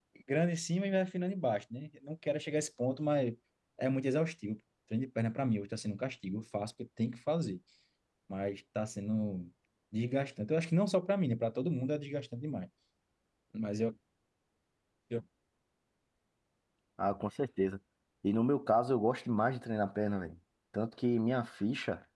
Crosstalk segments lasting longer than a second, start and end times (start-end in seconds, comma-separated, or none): none